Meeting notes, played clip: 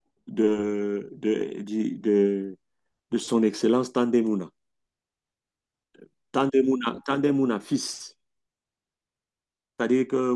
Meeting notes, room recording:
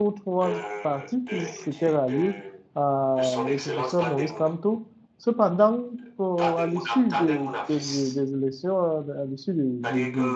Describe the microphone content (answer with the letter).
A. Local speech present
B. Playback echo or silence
A